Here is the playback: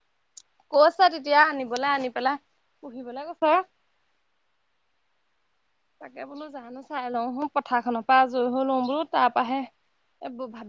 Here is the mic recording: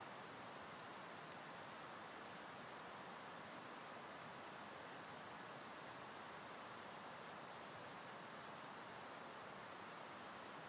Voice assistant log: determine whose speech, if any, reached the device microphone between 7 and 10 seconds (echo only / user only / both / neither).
neither